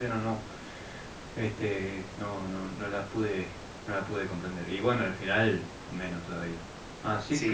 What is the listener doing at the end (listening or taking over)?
taking over